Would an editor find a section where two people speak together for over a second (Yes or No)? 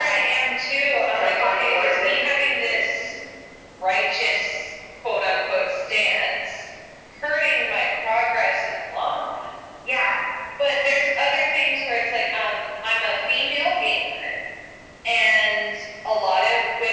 Yes